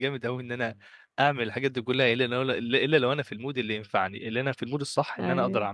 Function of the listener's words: listening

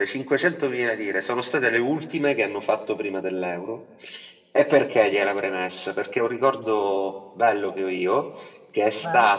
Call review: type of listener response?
listening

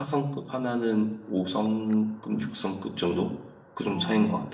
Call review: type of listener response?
taking over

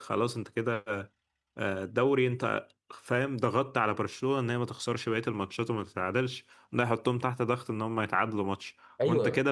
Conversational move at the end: listening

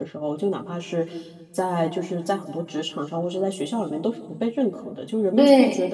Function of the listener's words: listening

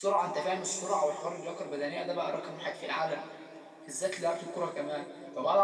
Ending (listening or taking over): listening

